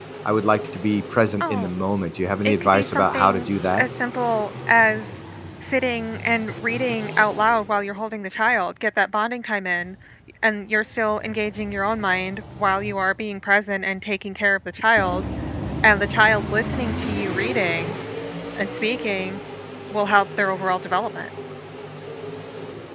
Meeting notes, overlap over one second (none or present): present